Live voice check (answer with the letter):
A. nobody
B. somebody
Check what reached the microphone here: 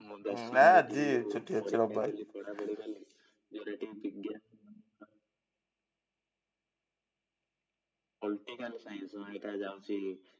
B